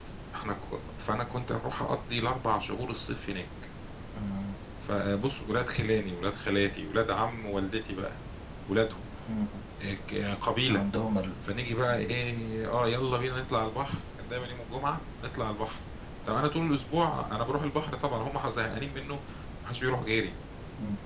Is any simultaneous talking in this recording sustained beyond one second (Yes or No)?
No